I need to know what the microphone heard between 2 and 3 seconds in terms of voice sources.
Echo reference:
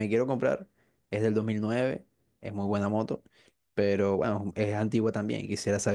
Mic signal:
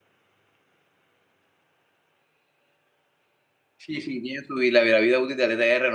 neither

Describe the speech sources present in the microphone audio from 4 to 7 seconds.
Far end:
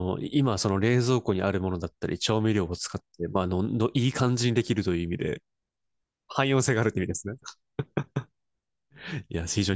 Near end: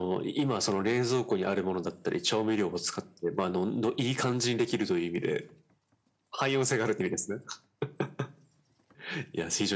echo only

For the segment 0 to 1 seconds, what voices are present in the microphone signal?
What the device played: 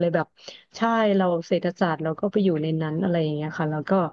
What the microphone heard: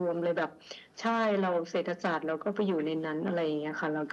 echo only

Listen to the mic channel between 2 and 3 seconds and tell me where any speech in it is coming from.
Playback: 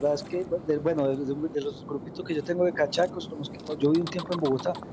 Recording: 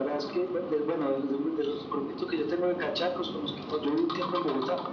echo only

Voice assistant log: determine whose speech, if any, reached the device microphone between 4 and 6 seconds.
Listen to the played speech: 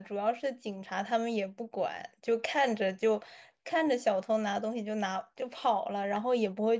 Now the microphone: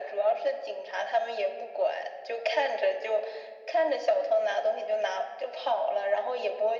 echo only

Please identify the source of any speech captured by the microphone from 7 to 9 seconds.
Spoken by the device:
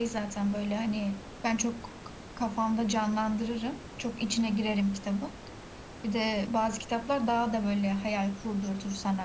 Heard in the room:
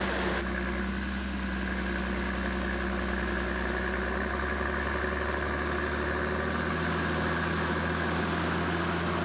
neither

